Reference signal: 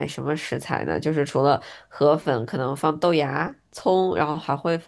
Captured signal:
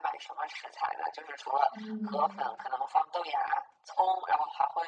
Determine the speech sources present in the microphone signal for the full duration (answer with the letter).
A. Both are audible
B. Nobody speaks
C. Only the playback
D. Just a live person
A